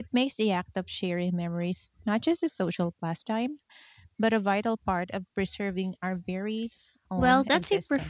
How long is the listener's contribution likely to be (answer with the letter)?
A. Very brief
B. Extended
B